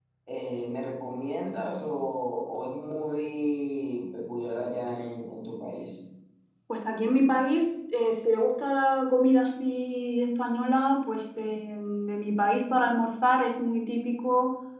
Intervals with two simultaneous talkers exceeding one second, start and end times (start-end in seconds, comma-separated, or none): none